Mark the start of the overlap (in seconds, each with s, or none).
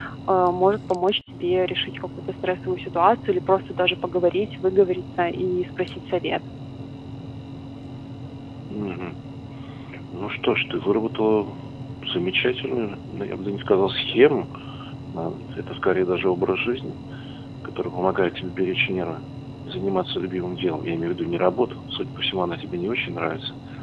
none